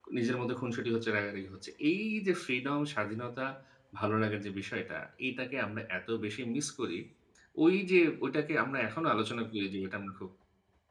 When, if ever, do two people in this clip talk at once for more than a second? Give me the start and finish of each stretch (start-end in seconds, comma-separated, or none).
none